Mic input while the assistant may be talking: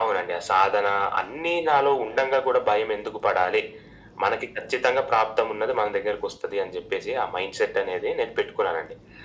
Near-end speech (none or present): none